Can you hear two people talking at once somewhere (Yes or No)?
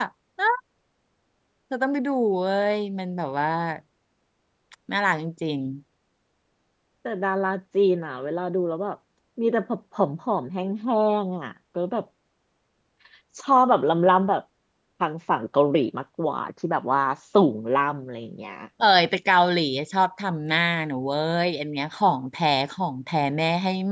No